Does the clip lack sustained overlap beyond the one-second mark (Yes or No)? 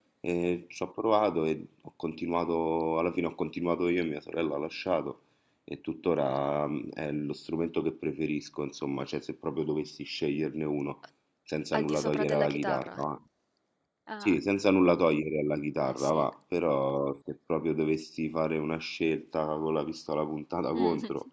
No